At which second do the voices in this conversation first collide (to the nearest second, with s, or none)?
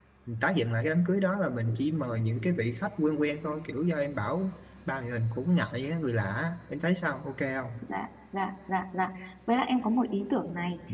none